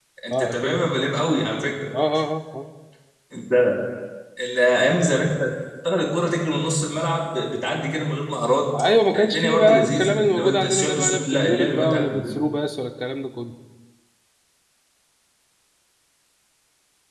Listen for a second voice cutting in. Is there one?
Yes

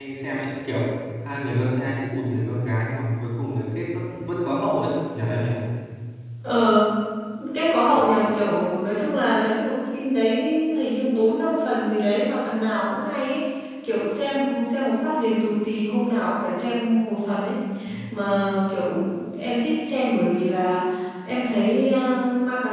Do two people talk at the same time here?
No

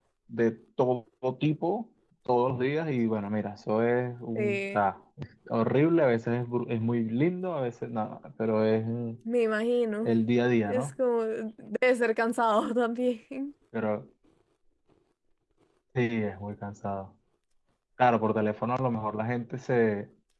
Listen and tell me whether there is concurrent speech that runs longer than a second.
No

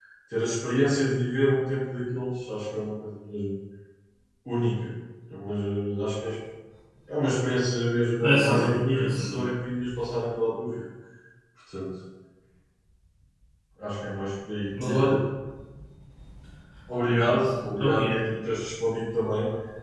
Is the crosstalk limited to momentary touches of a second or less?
No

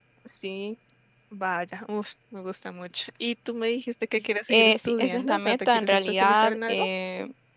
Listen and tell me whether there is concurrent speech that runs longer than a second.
Yes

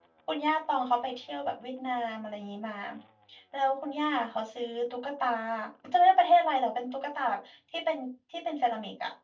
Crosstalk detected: No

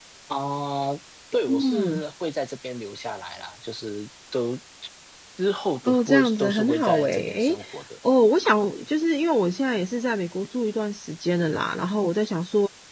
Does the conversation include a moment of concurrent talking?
Yes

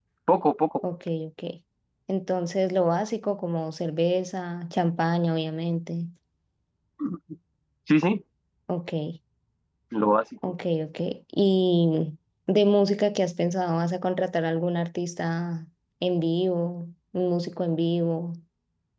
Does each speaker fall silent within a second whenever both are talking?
Yes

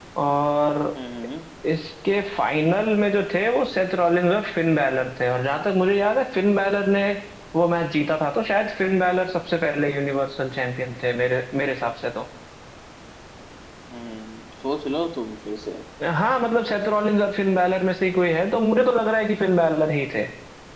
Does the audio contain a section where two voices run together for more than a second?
No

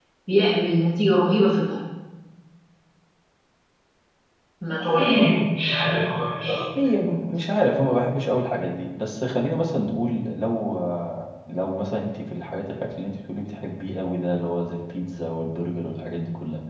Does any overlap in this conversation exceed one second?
No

